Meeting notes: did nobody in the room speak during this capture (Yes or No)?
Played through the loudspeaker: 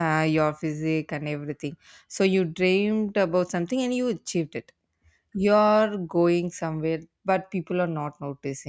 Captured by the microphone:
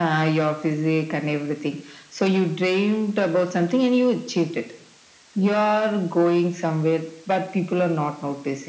Yes